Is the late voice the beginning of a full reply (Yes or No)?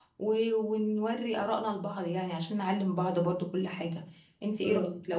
No